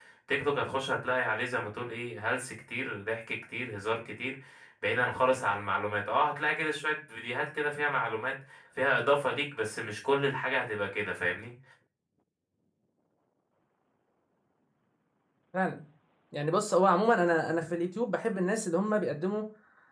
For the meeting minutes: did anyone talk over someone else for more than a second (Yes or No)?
No